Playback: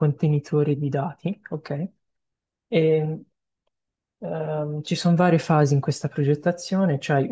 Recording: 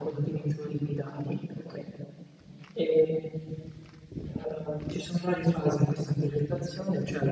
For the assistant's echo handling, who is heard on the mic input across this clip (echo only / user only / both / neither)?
echo only